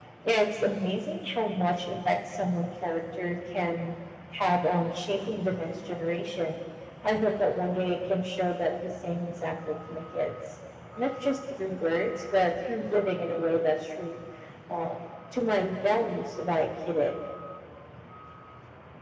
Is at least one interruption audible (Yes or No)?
No